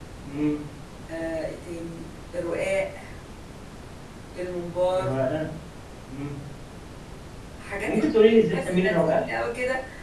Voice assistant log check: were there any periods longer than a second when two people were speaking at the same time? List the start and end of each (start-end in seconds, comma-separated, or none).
7.8-9.2